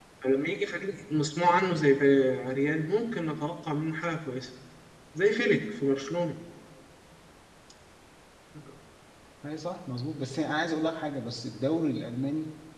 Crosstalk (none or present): none